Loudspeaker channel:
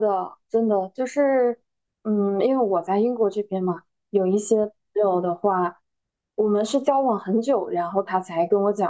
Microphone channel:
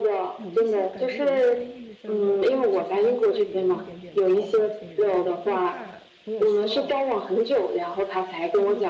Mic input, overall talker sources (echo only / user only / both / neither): both